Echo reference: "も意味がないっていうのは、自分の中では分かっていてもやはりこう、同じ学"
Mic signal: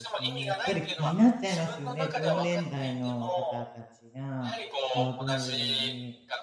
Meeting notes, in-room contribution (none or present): present